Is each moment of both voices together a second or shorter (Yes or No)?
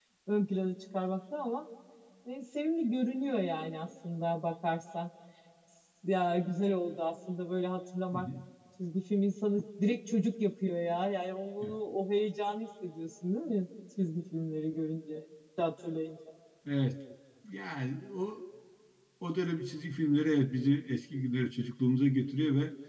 Yes